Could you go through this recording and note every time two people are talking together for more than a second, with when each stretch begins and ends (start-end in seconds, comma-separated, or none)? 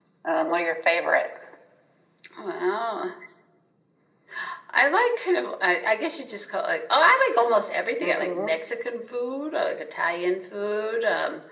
none